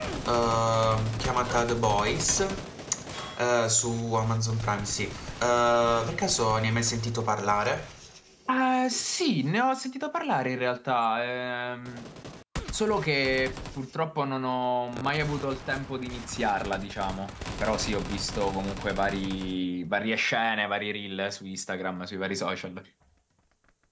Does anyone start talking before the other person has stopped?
No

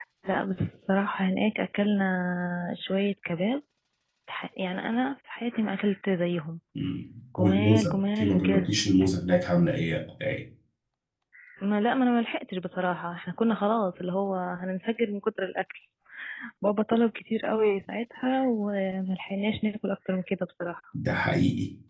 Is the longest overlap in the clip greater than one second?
Yes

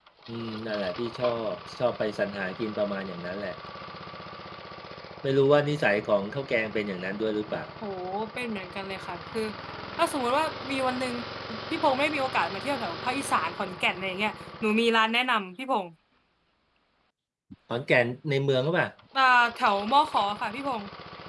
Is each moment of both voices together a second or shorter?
Yes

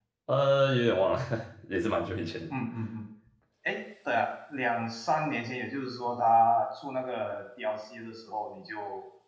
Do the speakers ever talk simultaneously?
No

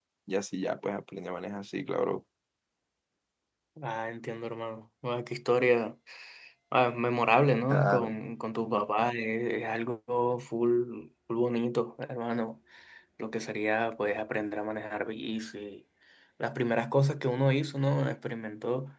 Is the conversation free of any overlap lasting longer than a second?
Yes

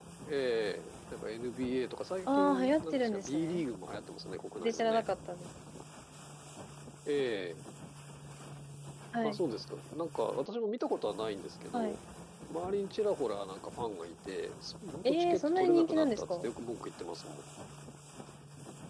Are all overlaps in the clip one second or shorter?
No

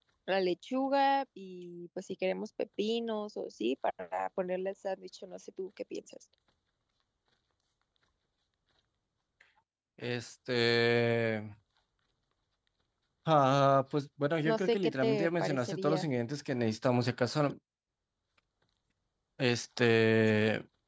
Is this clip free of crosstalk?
No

